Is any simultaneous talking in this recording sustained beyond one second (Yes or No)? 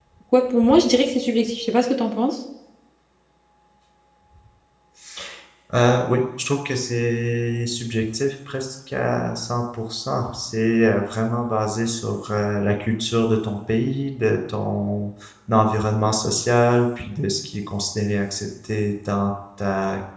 No